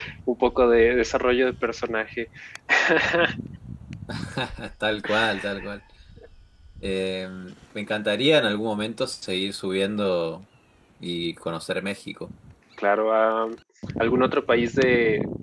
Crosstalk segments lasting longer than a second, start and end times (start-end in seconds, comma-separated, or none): none